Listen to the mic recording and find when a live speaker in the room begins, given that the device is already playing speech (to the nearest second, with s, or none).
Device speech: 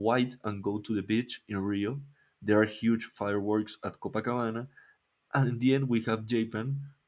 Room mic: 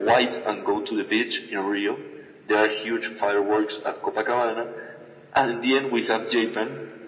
none